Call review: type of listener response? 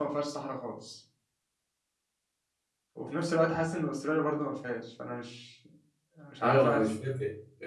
taking over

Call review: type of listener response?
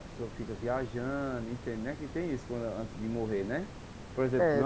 taking over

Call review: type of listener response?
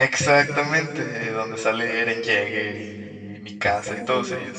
taking over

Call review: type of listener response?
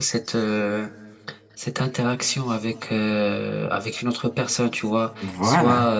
listening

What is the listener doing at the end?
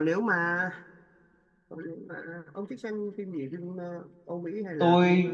taking over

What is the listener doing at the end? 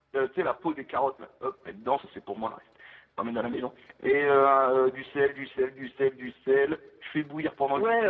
taking over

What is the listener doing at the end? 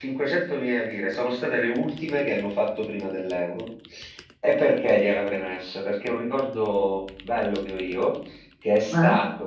listening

